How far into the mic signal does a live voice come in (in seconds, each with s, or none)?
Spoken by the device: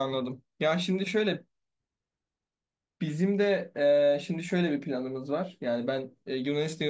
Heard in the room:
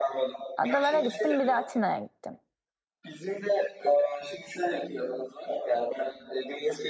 0.6 s